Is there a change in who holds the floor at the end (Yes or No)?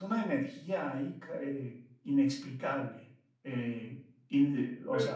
No